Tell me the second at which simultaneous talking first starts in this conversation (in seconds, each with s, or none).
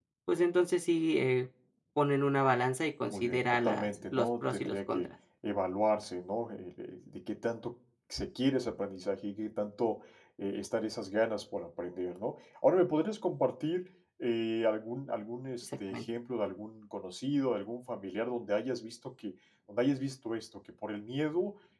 3.0 s